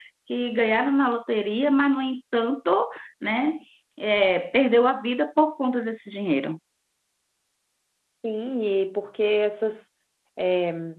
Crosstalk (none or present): none